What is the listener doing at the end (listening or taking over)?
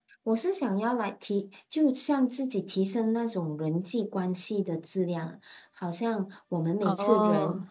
listening